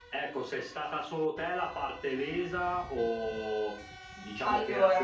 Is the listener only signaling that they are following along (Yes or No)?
Yes